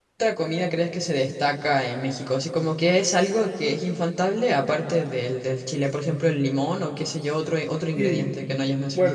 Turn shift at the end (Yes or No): Yes